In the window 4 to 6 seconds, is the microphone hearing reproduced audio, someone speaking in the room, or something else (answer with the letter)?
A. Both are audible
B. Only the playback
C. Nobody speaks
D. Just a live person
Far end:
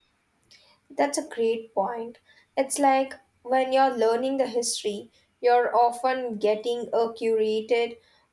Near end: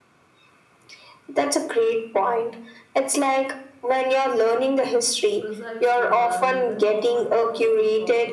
A